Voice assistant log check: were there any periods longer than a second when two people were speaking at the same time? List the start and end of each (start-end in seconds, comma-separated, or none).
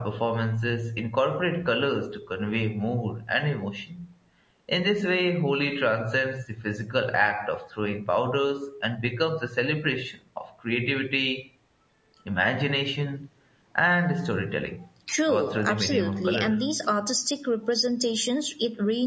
15.3-16.7